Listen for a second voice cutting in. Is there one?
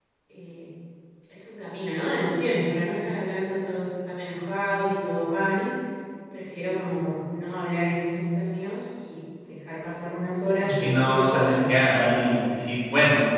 Yes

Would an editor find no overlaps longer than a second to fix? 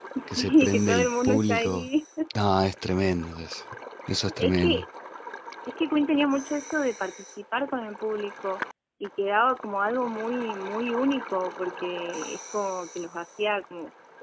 No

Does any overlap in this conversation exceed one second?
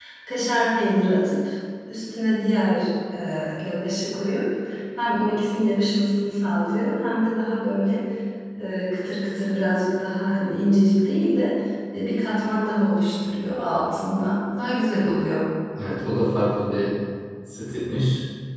No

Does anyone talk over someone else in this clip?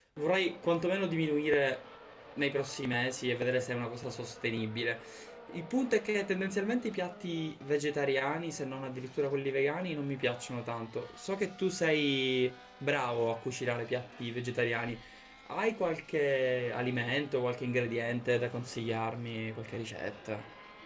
No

